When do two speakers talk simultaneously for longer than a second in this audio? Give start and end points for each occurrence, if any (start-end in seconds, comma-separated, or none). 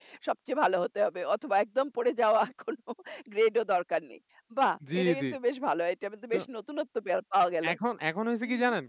none